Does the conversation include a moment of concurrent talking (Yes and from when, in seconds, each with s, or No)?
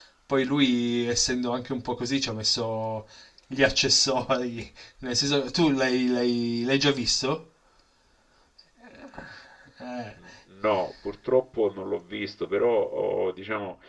No